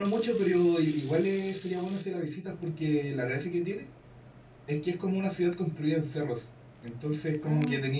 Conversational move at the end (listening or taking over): listening